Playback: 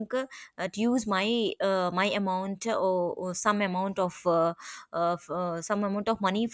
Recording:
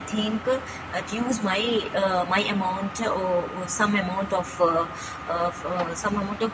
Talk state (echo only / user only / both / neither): echo only